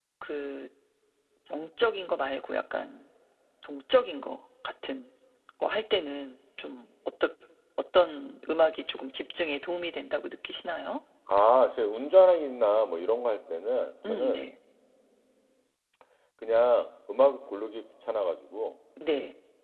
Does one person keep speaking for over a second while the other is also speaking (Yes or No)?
No